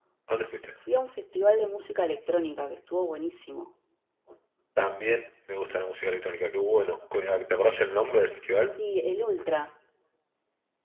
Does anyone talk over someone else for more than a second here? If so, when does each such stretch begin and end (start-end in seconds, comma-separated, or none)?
none